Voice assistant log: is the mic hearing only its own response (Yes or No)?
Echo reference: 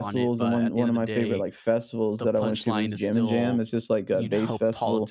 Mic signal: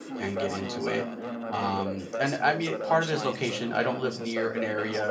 No